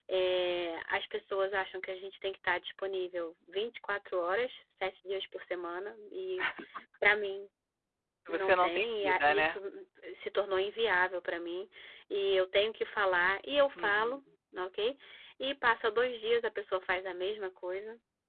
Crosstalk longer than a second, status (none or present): present